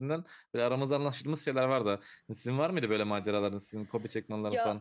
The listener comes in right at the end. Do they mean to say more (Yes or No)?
Yes